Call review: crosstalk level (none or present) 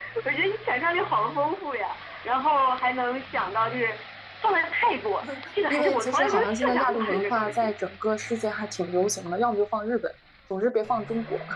present